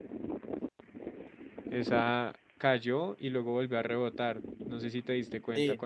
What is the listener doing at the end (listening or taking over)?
taking over